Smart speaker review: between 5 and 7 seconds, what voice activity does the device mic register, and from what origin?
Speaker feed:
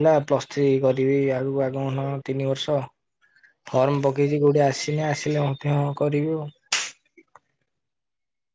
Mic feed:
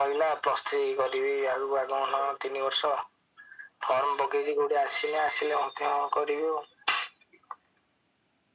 echo only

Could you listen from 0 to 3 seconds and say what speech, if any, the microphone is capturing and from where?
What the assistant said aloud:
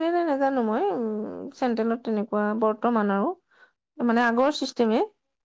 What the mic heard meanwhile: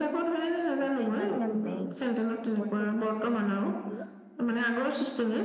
both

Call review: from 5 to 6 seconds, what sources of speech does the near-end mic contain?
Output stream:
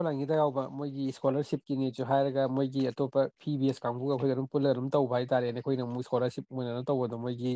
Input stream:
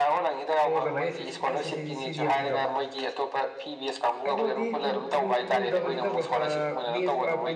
both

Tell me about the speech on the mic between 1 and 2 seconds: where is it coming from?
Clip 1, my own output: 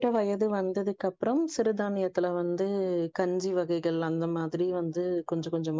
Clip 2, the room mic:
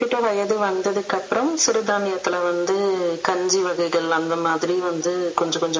echo only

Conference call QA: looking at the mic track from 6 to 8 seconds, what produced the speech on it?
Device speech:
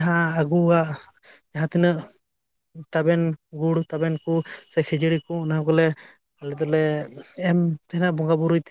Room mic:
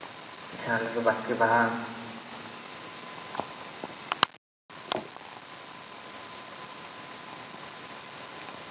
neither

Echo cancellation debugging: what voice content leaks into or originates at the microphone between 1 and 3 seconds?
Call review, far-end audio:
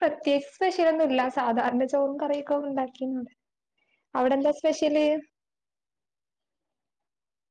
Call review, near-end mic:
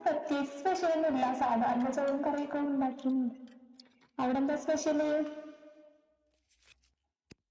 echo only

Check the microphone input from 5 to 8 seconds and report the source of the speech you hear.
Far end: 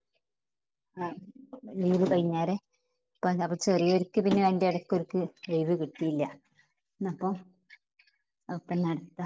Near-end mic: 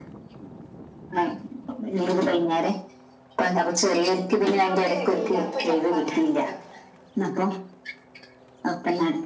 both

